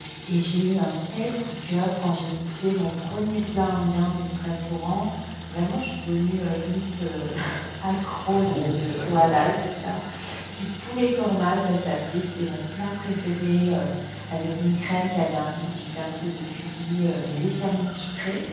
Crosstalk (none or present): present